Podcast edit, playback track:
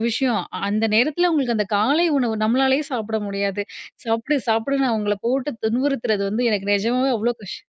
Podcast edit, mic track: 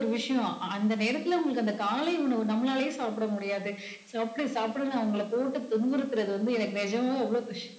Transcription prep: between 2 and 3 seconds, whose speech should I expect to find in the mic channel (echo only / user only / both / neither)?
echo only